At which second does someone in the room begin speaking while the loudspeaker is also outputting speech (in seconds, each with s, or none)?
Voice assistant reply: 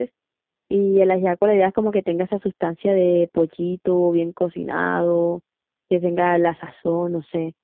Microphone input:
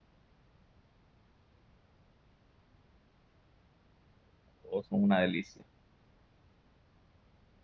4.6 s